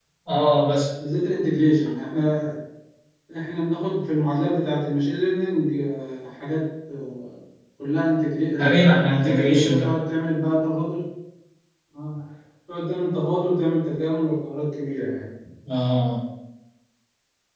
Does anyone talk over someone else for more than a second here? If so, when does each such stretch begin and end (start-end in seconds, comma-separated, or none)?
8.6-9.9